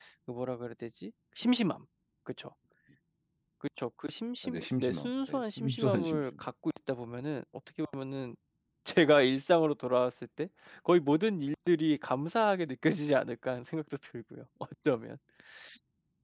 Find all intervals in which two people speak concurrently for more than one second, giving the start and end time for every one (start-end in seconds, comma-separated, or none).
4.4-6.2